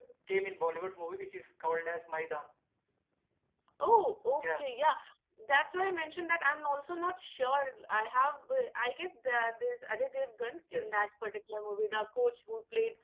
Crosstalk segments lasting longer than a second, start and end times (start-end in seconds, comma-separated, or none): none